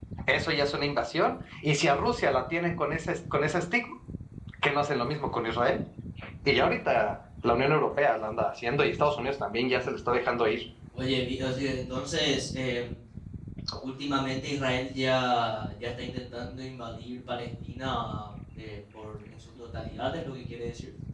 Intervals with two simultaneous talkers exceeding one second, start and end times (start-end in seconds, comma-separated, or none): none